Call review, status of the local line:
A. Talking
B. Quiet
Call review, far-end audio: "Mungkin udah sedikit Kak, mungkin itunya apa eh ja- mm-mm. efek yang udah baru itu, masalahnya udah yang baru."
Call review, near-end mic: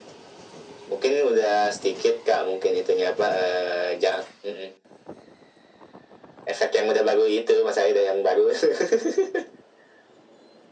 B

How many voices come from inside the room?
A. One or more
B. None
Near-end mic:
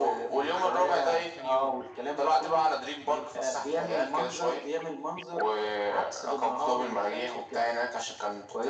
A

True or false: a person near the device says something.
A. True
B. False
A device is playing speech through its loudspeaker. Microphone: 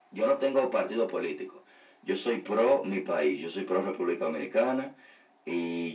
B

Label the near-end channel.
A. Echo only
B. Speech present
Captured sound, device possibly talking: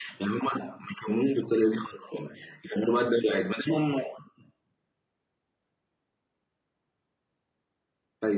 A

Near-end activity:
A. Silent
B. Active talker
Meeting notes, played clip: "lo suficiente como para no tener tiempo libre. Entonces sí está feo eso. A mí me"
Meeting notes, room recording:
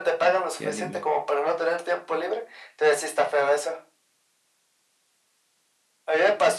B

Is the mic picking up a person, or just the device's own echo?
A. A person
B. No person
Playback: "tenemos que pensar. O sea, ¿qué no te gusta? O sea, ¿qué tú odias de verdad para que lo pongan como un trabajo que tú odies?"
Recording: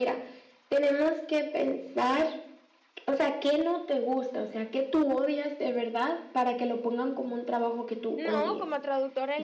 A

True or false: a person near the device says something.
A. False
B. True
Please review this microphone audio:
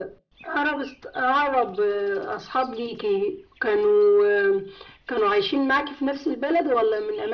A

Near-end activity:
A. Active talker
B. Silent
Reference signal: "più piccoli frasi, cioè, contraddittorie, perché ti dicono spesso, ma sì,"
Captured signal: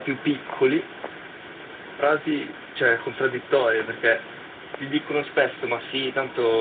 B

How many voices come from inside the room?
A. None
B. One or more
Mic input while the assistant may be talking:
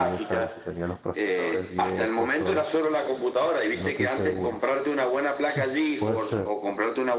B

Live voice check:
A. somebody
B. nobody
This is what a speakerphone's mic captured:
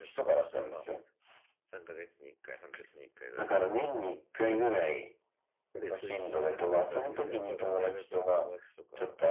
A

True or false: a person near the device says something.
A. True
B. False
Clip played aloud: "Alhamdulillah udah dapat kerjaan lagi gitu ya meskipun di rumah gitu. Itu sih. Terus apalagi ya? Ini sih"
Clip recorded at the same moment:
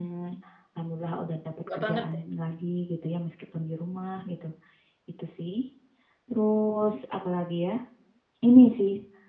A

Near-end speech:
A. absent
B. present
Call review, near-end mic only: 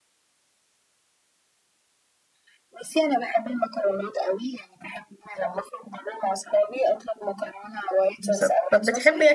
B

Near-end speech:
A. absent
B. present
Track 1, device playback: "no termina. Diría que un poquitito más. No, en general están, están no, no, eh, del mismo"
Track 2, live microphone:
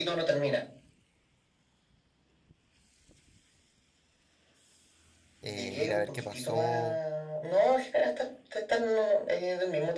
B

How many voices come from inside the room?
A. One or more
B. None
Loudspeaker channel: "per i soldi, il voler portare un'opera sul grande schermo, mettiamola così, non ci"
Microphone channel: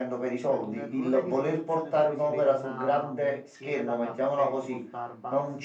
A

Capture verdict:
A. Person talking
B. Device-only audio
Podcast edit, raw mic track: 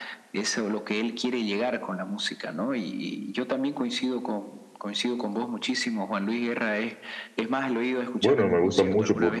A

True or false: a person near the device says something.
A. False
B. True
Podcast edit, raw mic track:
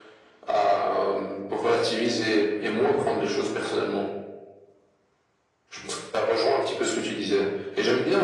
A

